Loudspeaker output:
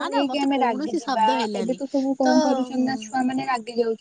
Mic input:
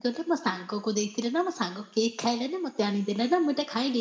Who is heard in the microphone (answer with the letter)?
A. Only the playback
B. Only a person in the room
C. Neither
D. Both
B